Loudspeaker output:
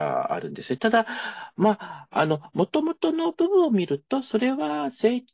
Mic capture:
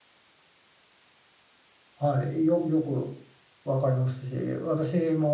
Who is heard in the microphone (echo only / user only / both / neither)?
user only